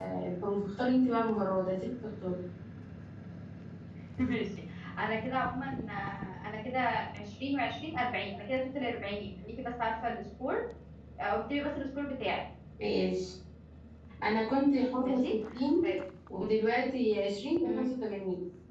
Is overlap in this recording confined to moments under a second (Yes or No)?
Yes